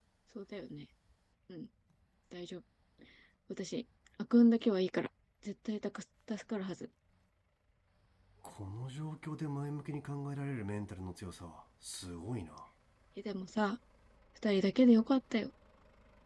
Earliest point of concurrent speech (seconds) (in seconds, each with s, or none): none